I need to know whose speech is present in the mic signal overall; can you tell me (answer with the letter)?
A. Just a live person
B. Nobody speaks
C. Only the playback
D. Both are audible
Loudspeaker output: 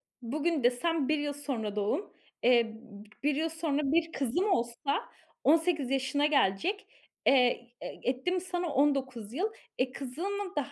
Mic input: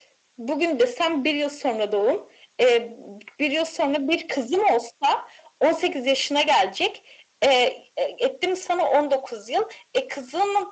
C